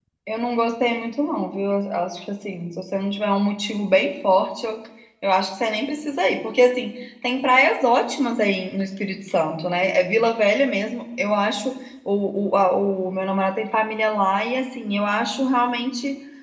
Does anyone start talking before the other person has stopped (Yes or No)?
No